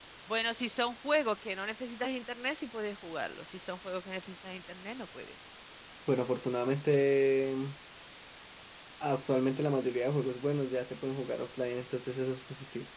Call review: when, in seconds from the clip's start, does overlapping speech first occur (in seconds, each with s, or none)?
none